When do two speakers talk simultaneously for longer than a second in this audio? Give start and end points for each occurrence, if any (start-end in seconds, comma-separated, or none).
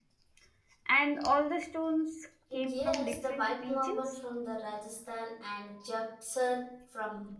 2.7-4.2